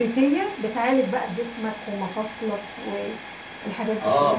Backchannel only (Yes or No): No